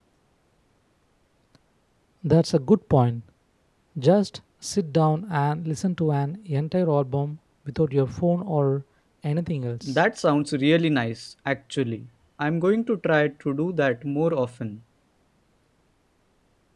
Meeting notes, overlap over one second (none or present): none